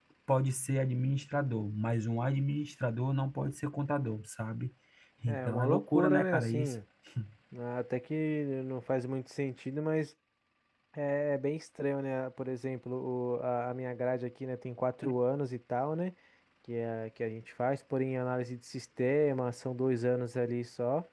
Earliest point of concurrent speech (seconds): 5.3 s

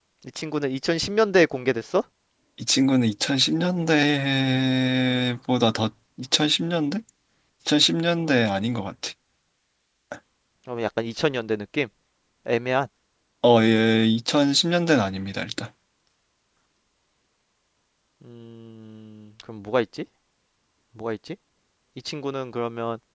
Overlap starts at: none

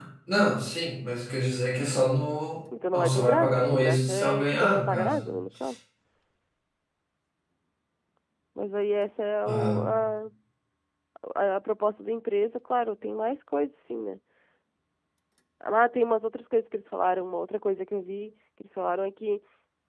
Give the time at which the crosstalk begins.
2.9 s

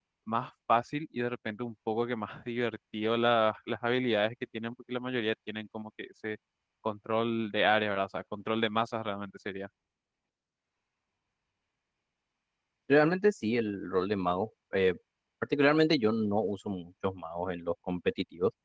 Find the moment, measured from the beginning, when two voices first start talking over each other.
none

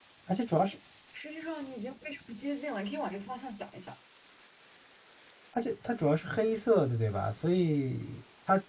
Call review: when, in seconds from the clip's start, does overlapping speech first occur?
none

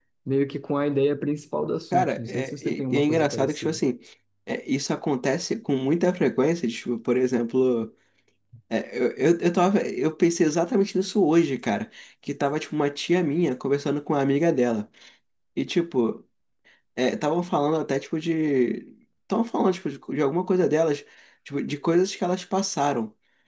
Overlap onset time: 1.9 s

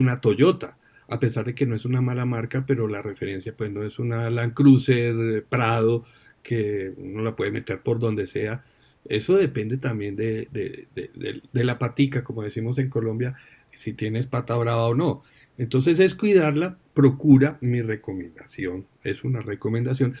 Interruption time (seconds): none

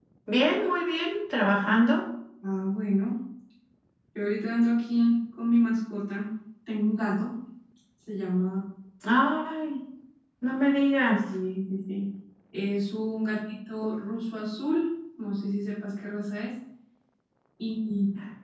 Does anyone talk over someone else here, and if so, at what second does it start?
none

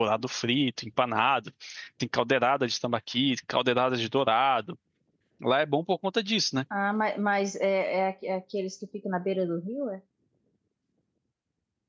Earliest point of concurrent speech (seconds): none

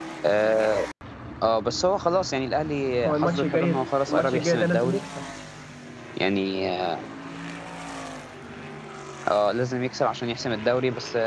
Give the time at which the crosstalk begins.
3.0 s

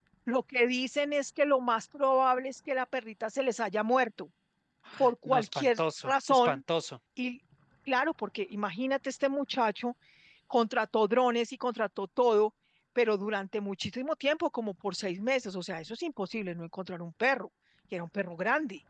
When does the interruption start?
5.2 s

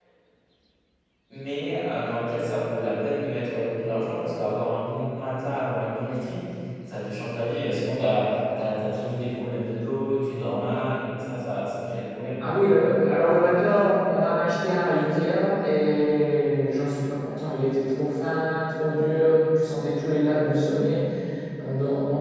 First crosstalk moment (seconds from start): none

